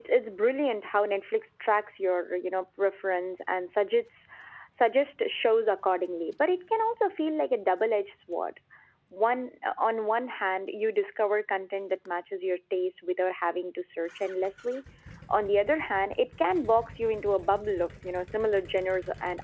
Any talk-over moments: No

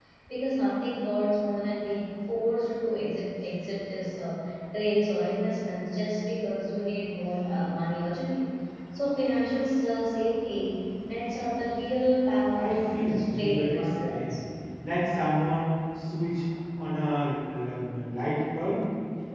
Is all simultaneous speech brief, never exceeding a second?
No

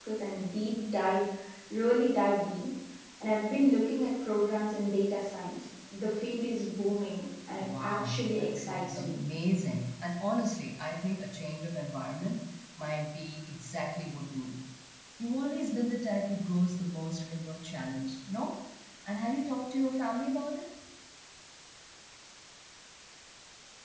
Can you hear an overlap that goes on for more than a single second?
Yes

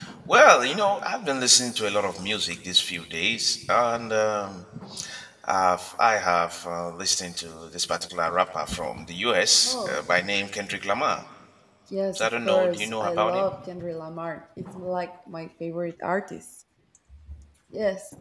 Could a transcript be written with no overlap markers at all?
No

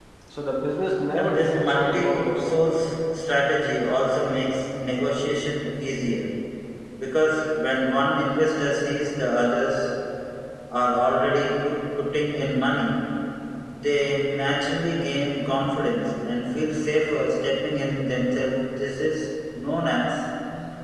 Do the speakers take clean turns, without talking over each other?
No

